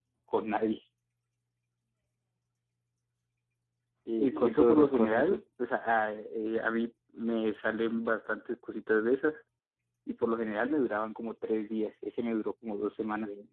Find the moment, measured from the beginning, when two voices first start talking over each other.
4.2 s

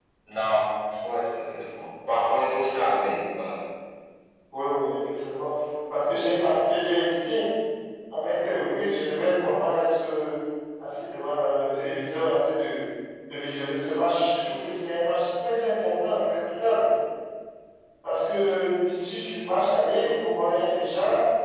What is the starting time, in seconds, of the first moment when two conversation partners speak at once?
none

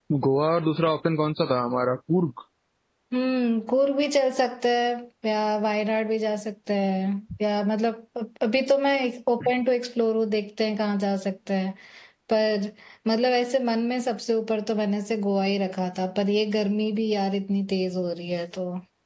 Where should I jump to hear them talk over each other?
none

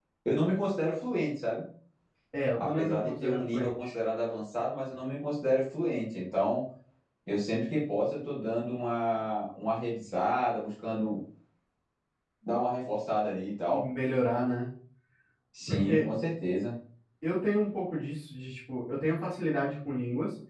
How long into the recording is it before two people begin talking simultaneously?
2.5 s

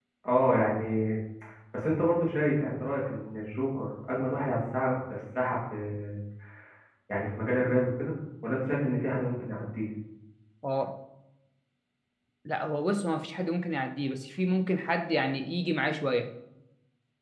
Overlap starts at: none

